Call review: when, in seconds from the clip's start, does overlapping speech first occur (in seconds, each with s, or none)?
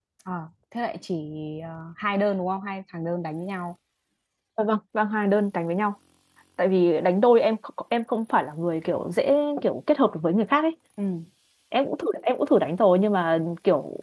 none